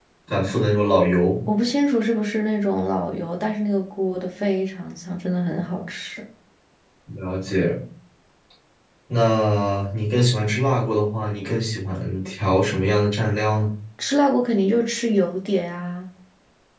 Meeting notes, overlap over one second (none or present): none